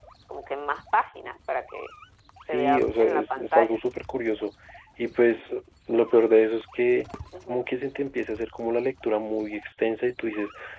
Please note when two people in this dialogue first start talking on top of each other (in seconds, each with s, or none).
2.5 s